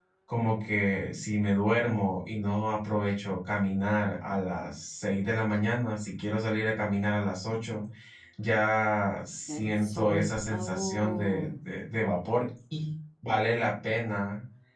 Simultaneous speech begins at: 9.5 s

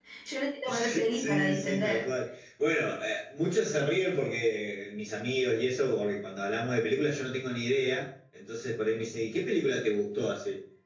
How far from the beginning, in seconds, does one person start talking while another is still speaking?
0.7 s

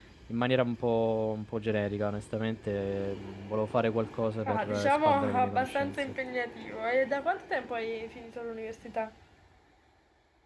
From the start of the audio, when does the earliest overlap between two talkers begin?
4.5 s

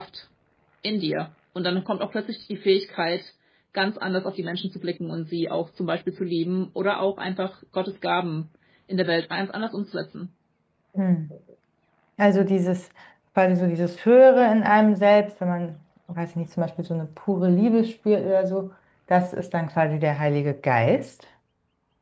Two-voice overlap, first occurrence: none

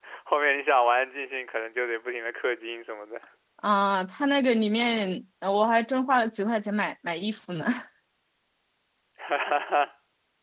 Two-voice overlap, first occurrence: none

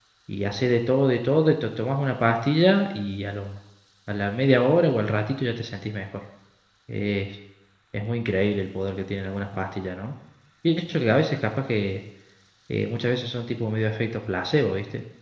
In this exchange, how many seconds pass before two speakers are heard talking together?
none

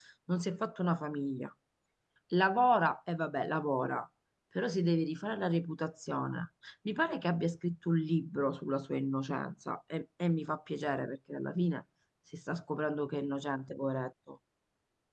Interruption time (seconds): none

